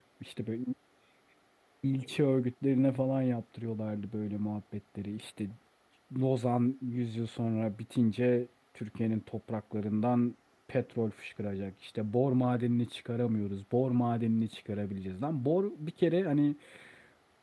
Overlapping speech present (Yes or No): No